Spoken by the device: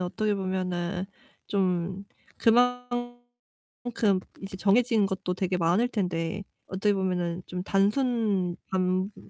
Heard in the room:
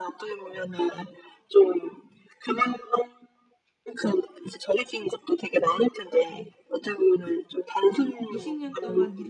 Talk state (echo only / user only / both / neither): both